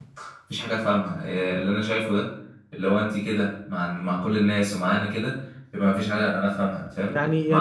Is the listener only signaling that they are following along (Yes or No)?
No